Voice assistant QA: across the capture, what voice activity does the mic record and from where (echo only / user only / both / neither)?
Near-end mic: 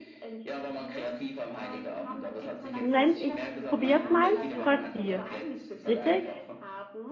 both